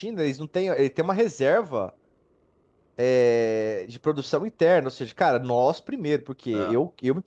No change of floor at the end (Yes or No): Yes